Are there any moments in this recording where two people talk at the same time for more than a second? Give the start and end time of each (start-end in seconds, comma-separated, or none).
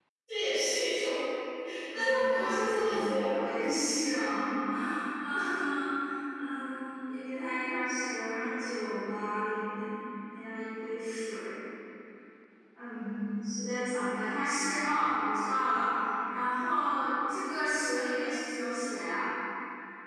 1.9-3.4